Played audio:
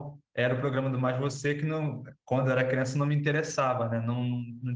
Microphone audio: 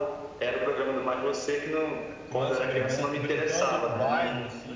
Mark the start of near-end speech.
2.3 s

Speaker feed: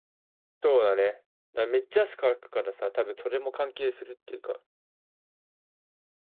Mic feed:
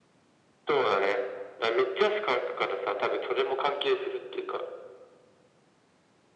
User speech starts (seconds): none

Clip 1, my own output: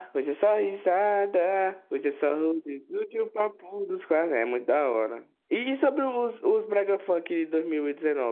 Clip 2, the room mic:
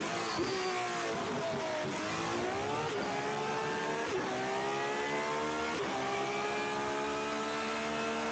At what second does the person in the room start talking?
none

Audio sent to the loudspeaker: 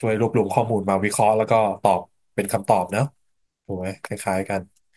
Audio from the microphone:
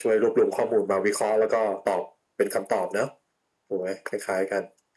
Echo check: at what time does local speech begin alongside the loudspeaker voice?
none

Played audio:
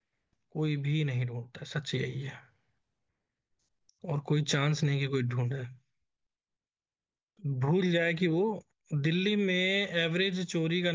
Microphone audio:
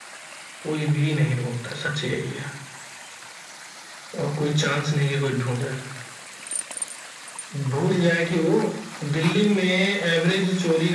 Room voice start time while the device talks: none

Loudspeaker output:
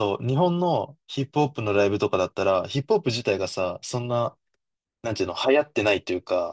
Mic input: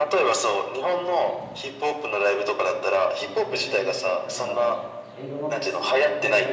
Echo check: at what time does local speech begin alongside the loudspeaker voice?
3.1 s

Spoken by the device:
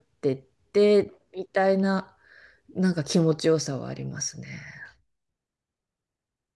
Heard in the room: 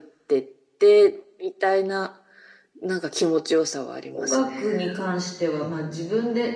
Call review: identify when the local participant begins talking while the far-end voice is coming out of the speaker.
4.1 s

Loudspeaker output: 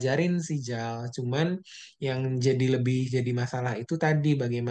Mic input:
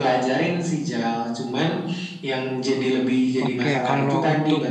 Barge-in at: 3.4 s

